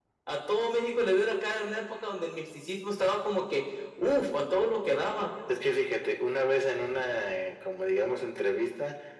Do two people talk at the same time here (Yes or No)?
No